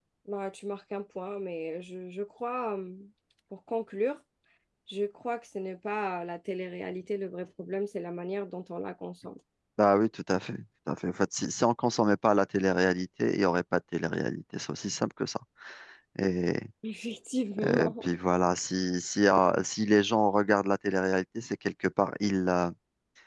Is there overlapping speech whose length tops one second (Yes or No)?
No